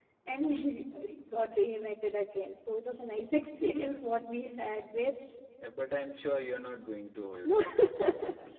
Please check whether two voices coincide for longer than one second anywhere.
No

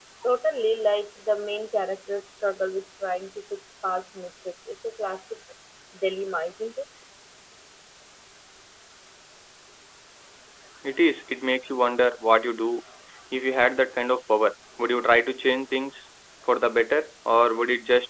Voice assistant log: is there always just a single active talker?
Yes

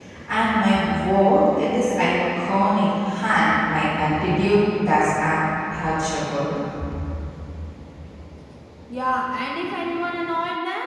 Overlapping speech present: No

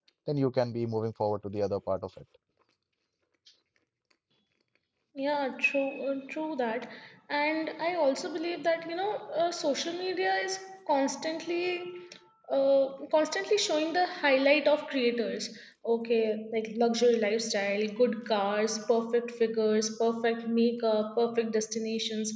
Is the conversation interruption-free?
Yes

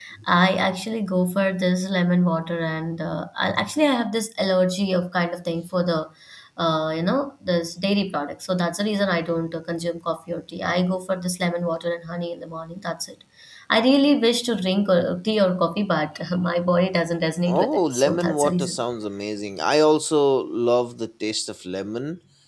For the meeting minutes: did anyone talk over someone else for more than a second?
Yes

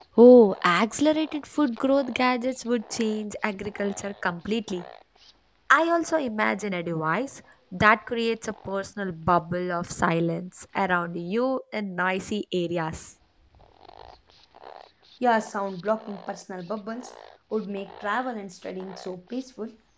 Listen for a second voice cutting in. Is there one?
No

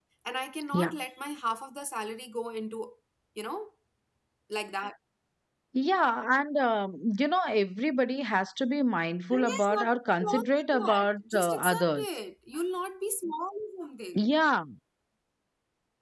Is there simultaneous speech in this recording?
Yes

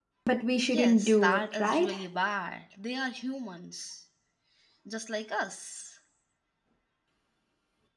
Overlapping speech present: Yes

